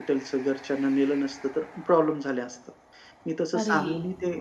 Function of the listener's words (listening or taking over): listening